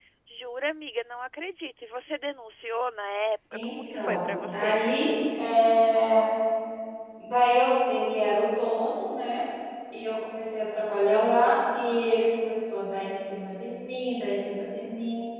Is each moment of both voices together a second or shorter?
No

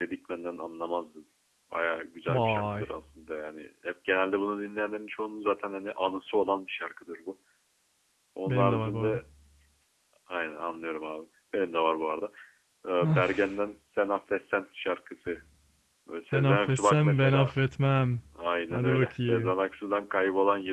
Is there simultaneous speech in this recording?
Yes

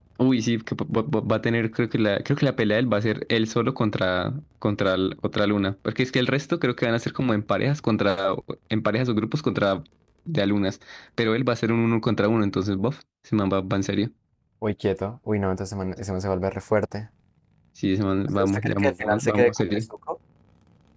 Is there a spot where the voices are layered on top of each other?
Yes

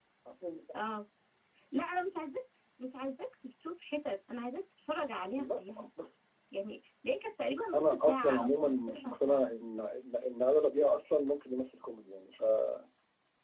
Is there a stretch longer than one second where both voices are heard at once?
Yes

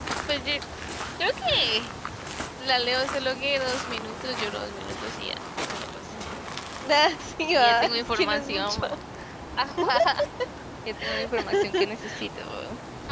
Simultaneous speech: Yes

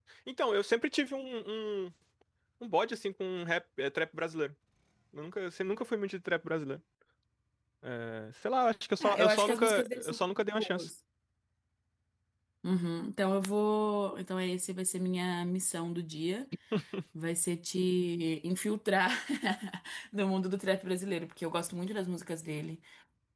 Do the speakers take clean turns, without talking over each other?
No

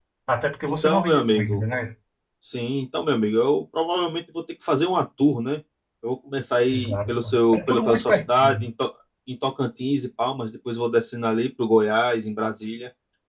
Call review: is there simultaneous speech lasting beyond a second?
Yes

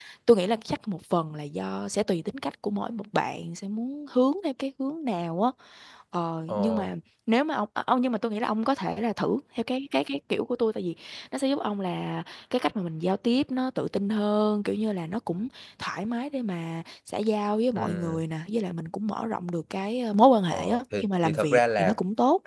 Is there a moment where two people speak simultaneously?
Yes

